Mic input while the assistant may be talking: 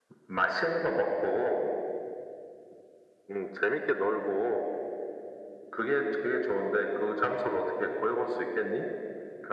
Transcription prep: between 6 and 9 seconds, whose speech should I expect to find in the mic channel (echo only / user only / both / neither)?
echo only